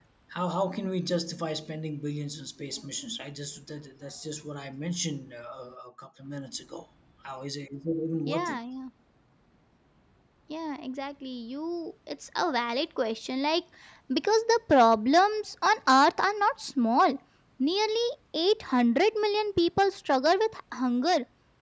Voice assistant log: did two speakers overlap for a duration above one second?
No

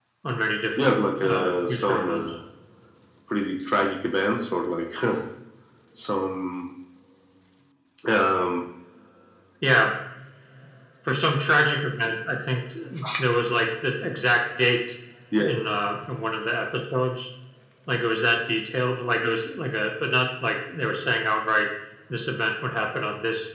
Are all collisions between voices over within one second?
No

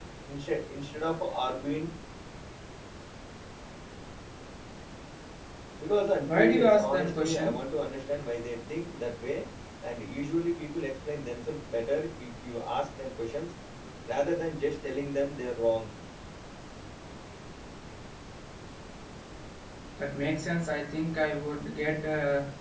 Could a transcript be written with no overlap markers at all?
No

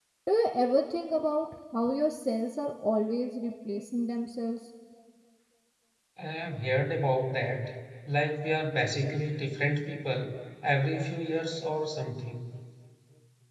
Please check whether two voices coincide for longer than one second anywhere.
No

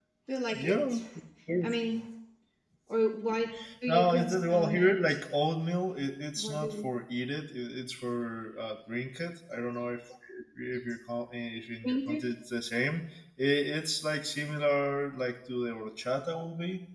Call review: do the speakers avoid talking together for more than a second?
No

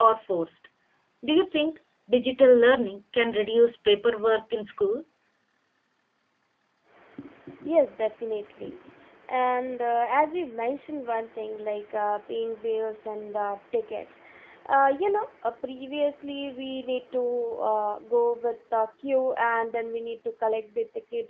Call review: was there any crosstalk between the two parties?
No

